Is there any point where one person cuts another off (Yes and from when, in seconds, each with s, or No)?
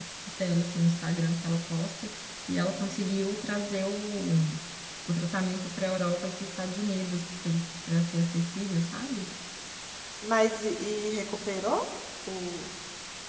No